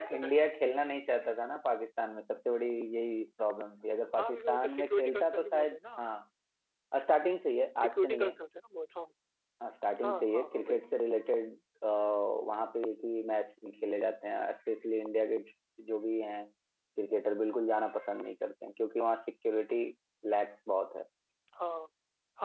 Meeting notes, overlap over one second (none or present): present